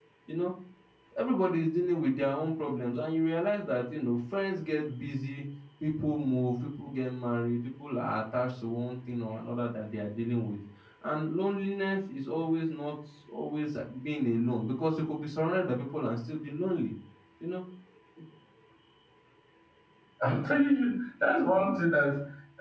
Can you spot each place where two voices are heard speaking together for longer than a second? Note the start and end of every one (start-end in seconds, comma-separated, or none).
none